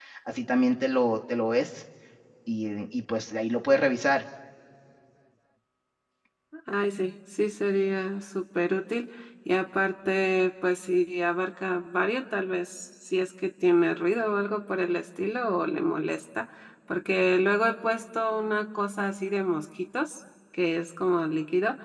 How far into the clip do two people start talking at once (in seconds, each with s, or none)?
none